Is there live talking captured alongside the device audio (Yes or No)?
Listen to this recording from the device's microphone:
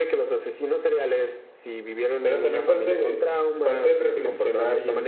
Yes